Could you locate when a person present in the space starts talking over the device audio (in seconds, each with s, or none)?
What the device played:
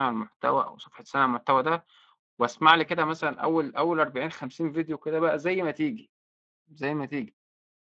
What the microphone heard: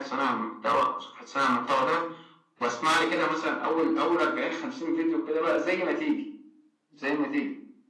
none